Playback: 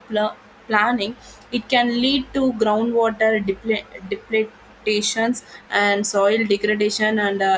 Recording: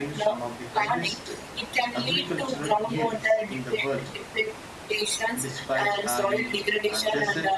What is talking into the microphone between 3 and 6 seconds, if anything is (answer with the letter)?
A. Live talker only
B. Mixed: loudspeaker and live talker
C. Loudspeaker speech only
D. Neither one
B